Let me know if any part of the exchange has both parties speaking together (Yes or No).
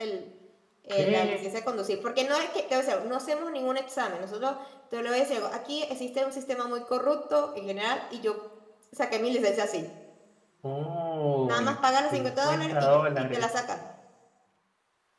Yes